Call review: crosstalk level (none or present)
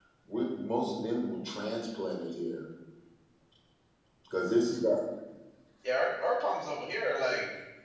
none